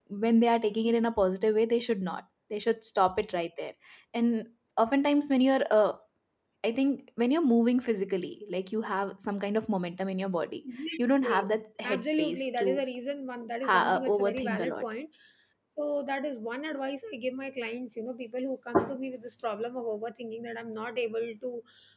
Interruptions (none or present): present